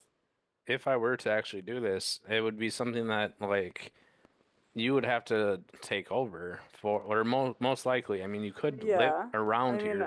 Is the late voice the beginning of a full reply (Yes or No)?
Yes